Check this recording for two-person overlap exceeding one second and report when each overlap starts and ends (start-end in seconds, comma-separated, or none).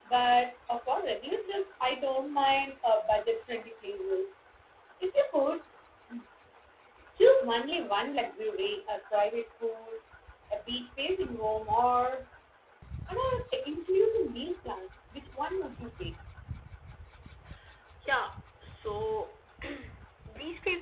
none